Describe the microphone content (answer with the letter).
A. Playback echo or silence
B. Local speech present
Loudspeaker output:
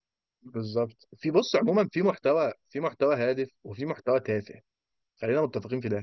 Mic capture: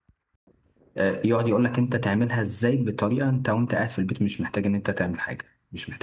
B